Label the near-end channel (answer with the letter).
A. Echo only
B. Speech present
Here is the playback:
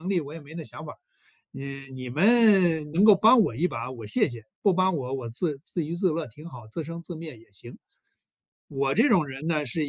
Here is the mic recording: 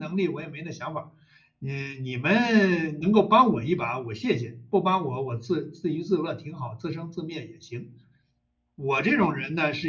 A